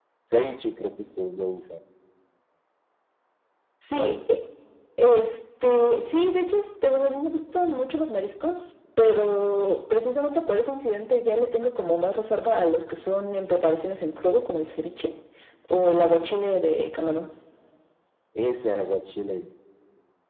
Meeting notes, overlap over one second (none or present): none